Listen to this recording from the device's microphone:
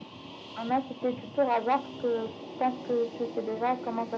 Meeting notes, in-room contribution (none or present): none